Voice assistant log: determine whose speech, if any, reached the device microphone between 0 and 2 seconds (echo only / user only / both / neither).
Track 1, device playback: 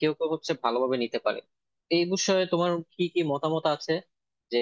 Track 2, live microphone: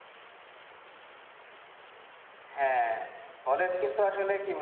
neither